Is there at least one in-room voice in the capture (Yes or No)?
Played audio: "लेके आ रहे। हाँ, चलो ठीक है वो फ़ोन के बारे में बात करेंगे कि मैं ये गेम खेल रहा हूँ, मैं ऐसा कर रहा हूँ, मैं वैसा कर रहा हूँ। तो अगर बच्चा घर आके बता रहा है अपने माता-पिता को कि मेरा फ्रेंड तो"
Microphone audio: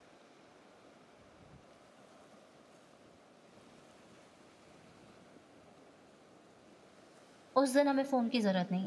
Yes